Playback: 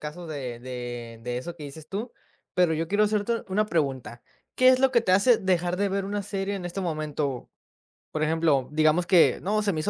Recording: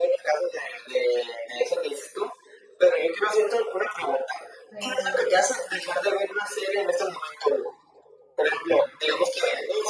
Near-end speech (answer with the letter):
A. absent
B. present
B